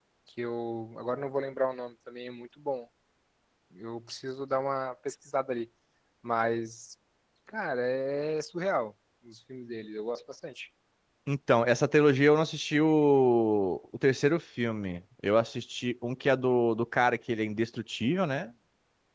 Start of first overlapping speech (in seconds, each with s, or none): none